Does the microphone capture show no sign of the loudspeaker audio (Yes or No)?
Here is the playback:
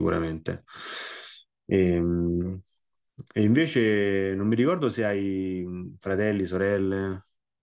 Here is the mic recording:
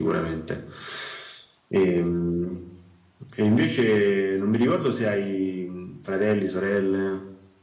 No